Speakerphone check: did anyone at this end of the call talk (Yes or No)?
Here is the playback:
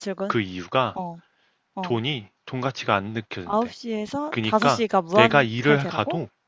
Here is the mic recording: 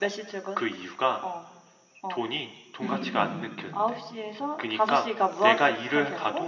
Yes